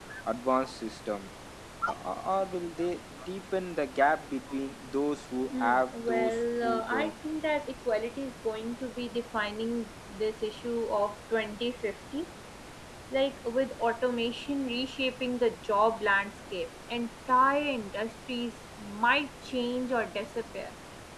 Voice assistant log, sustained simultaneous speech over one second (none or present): present